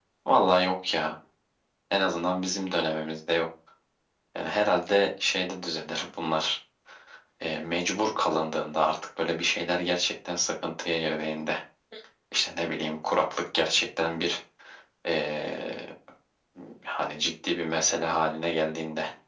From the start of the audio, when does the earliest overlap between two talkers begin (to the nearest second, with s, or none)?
none